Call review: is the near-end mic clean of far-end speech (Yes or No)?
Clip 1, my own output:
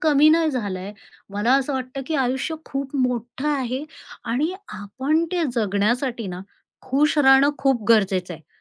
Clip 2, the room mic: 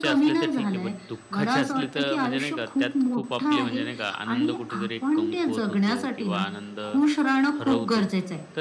No